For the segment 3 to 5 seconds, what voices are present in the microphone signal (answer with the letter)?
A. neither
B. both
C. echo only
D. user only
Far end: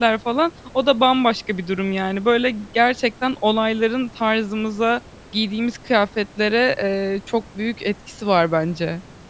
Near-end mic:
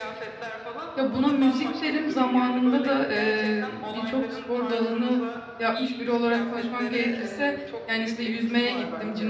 B